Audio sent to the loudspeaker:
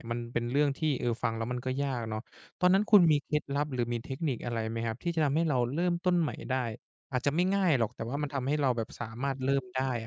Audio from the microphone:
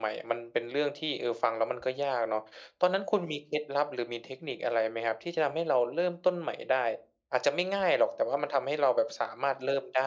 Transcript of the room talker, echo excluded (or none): none